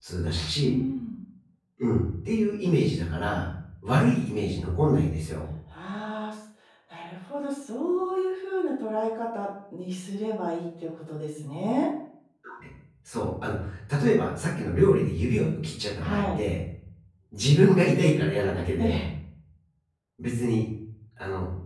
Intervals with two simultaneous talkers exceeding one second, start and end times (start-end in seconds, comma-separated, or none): none